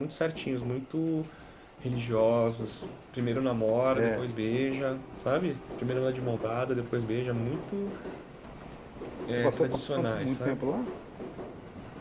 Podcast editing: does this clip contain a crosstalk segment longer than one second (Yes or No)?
Yes